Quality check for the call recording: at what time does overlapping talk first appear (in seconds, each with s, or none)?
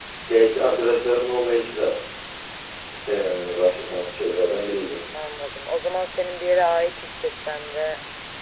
none